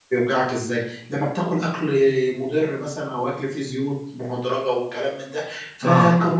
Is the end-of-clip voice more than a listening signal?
No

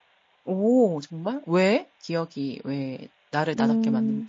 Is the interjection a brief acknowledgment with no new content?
No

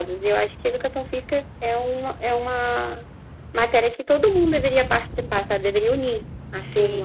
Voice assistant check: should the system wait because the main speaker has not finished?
No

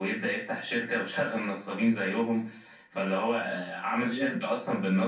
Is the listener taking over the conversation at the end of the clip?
No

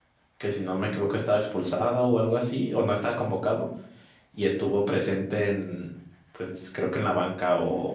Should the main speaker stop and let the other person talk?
No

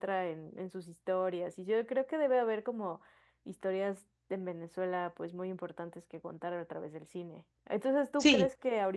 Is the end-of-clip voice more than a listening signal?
No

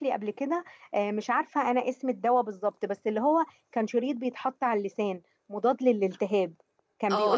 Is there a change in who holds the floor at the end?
Yes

